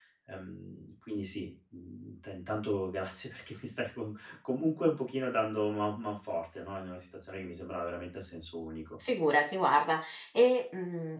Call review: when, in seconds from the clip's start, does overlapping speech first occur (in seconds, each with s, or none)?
none